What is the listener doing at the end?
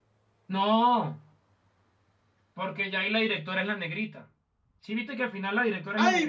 taking over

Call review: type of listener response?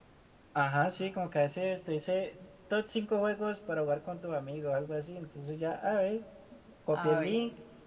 listening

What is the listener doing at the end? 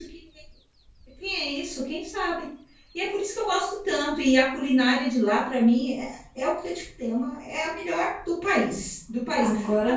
taking over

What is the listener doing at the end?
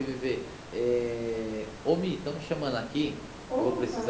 listening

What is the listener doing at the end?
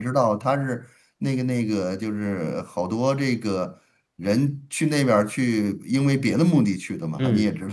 taking over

